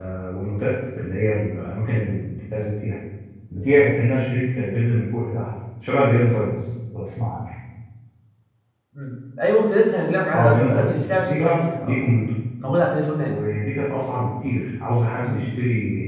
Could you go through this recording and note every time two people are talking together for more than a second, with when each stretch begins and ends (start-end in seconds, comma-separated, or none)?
10.3-12.0